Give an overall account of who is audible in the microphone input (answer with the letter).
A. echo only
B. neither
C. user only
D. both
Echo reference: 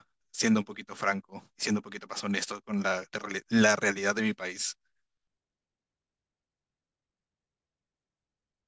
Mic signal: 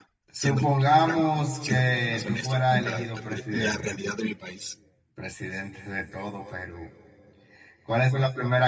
D